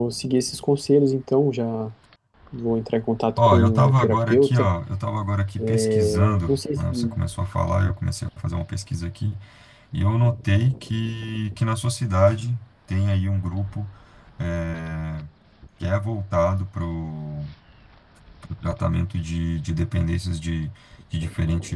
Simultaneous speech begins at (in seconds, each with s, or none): 3.4 s